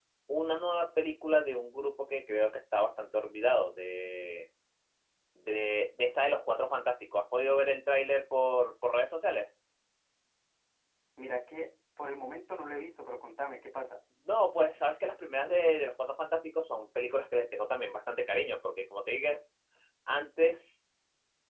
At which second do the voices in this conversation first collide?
none

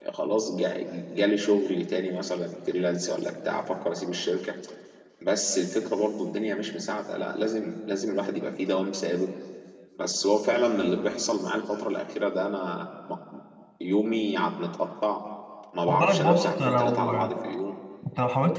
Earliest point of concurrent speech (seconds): 16 s

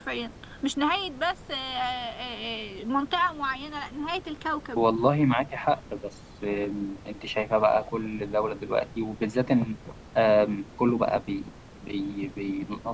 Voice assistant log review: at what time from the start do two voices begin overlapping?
none

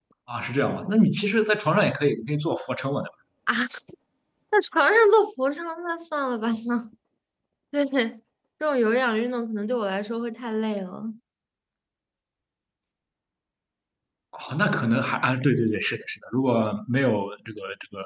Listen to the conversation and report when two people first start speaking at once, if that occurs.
none

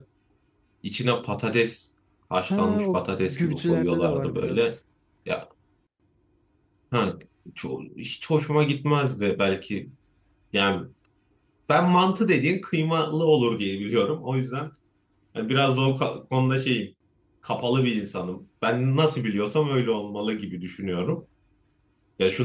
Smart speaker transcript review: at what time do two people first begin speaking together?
3 s

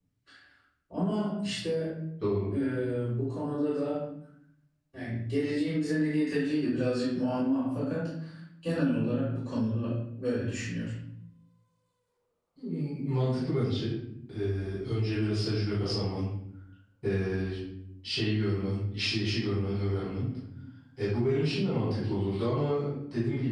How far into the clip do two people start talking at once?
none

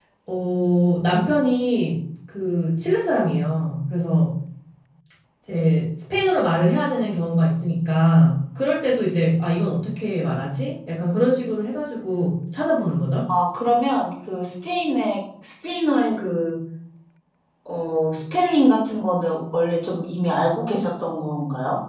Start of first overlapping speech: none

